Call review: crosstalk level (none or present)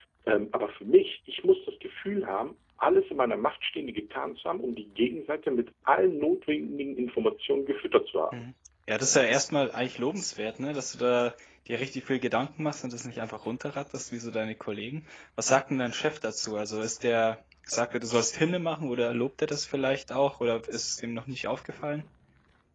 none